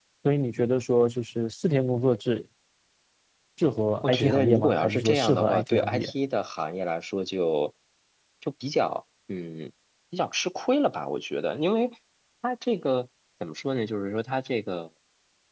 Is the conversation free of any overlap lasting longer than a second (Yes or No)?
No